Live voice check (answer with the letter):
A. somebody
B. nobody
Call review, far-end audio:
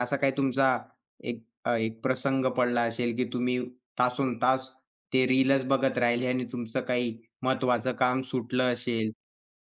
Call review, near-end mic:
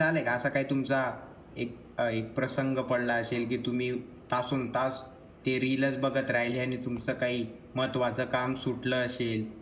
B